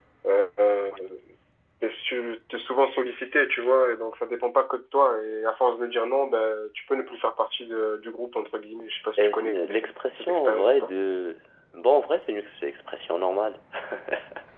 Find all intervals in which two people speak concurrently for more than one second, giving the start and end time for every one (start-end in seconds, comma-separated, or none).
9.2-10.9